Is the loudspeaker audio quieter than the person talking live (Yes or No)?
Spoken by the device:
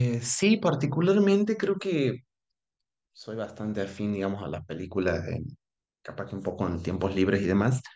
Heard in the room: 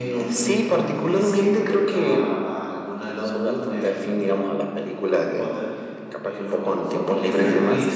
No